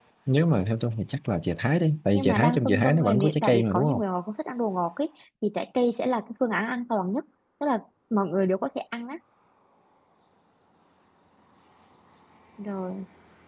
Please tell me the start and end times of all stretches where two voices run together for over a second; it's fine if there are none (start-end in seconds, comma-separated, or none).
2.1-4.0